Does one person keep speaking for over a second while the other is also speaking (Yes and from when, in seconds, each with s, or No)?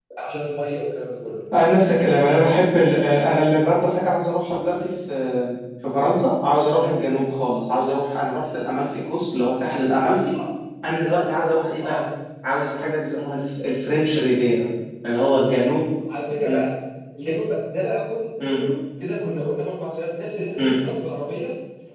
No